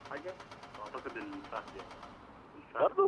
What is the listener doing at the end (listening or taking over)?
listening